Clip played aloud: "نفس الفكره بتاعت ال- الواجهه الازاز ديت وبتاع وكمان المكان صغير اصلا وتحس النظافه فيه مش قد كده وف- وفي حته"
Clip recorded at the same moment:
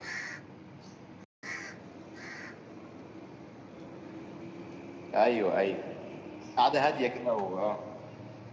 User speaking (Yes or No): Yes